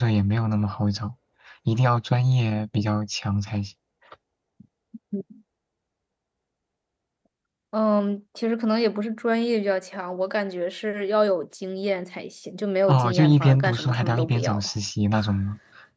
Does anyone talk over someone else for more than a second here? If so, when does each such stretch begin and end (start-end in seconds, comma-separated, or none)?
12.9-14.6